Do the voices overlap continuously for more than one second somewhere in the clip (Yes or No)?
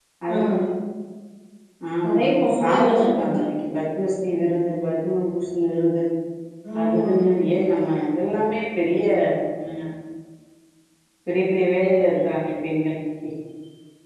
Yes